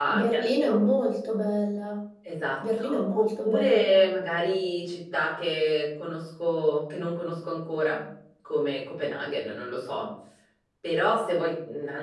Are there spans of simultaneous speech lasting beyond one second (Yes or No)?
Yes